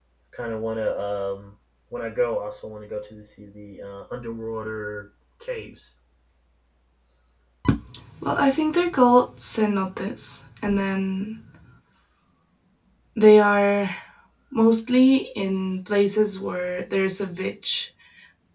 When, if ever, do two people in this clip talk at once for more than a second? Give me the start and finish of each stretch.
none

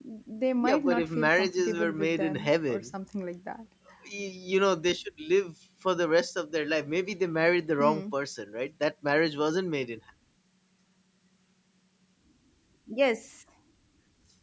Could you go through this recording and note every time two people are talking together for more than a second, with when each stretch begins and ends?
0.6-2.9

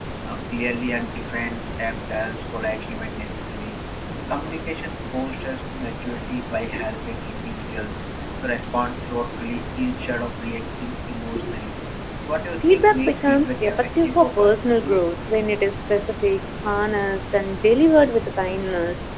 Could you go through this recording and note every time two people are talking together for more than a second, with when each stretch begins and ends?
12.7-15.0

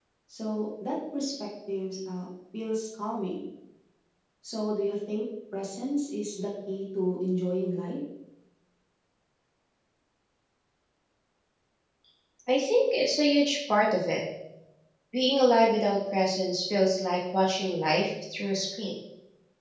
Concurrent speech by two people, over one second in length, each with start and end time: none

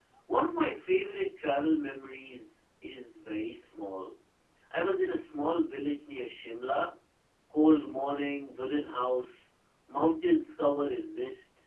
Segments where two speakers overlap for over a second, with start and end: none

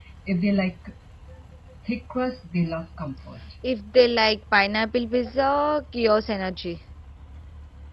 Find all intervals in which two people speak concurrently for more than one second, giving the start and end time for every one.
none

